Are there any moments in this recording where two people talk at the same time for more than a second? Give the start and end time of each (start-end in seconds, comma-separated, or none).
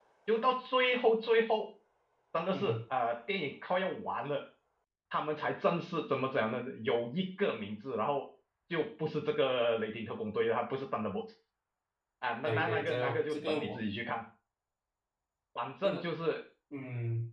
12.4-13.8